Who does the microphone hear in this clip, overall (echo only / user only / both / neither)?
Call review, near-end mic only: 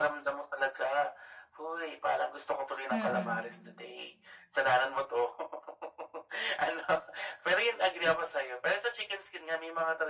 both